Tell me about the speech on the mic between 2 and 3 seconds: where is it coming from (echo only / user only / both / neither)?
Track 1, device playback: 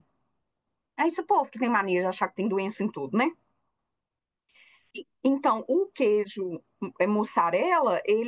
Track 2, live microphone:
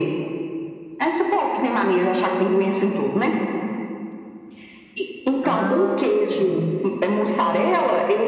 echo only